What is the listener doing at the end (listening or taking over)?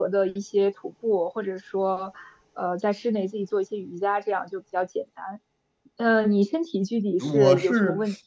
taking over